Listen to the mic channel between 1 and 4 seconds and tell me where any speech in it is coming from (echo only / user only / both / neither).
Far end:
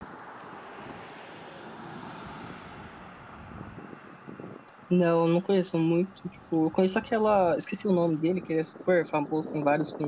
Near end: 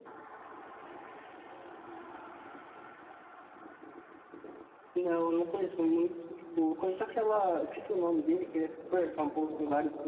neither